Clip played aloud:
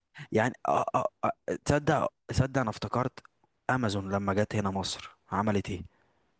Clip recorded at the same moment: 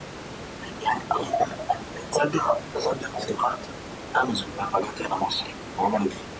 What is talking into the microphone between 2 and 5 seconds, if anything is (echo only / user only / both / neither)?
echo only